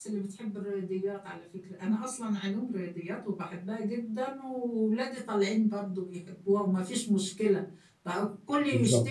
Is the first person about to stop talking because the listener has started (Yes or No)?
No